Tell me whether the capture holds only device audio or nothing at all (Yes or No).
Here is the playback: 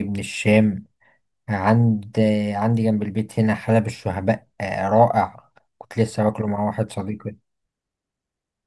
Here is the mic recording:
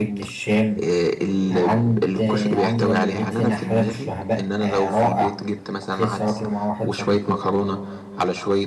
No